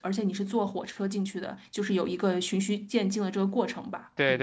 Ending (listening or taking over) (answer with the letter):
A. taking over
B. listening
A